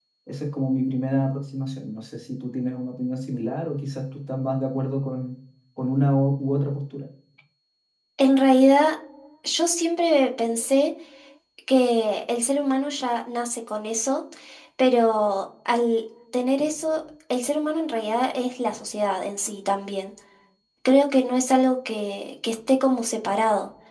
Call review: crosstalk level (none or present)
none